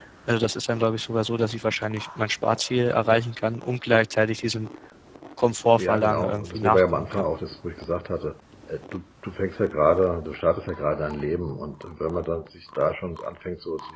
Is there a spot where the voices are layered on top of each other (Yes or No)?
Yes